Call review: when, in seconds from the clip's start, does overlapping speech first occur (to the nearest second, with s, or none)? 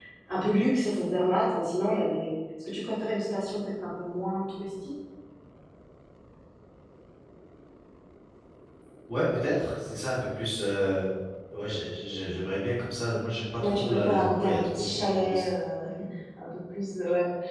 14 s